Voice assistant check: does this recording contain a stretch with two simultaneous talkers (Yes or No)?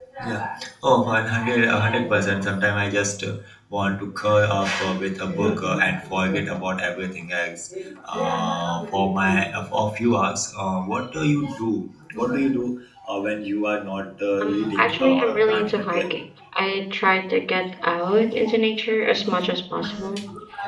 Yes